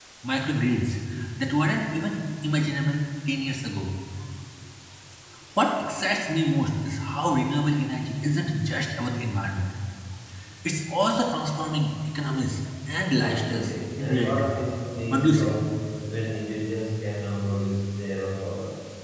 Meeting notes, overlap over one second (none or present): present